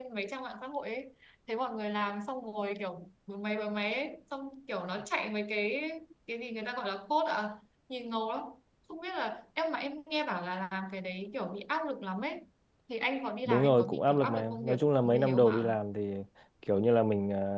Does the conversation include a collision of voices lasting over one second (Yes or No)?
Yes